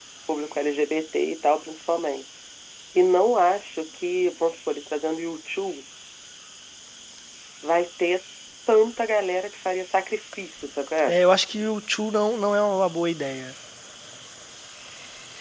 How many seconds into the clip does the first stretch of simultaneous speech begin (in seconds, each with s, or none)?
none